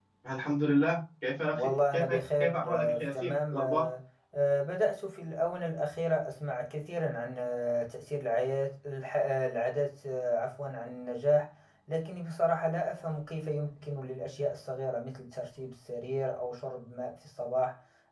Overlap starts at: 1.5 s

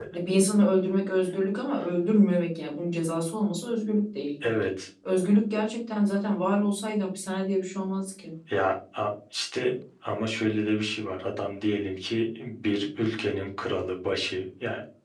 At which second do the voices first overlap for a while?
none

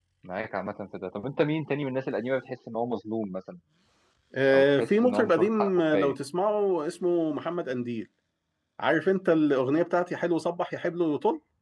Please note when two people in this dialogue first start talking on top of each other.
4.5 s

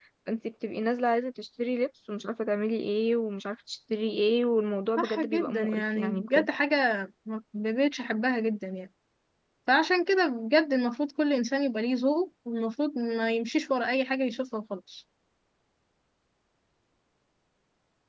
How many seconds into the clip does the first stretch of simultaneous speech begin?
5.0 s

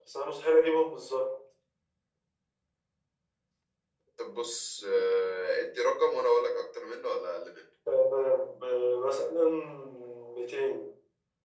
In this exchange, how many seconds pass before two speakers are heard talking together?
none

